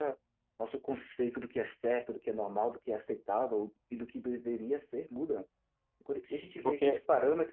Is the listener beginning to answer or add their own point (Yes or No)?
No